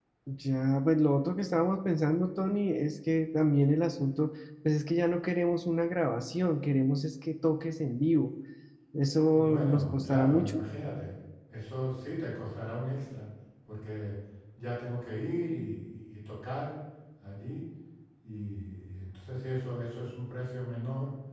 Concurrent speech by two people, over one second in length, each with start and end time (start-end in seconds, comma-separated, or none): 9.1-10.6